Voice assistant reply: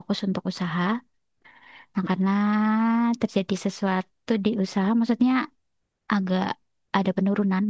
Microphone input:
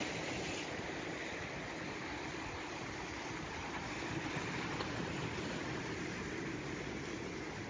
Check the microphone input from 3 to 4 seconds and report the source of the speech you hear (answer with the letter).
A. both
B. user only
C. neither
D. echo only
C